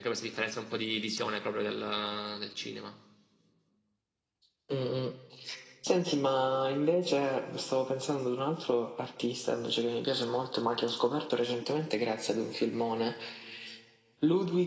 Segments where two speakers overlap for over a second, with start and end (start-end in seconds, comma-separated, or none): none